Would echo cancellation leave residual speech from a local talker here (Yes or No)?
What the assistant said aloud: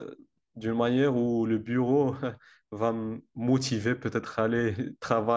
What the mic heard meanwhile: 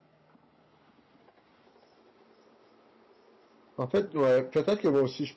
Yes